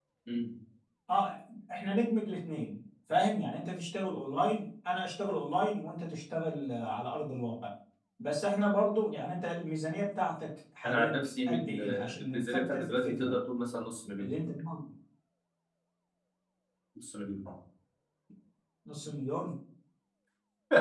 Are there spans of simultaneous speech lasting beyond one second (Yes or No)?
Yes